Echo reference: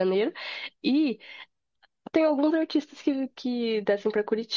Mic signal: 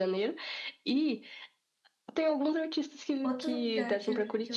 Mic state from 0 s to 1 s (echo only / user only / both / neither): echo only